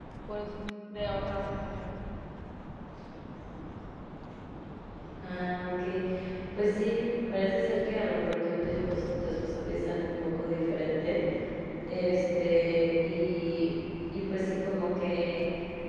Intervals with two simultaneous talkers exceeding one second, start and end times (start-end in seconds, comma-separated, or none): none